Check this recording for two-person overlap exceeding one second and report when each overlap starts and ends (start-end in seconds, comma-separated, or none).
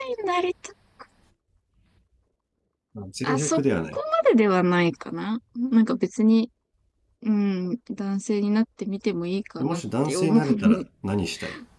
9.6-10.8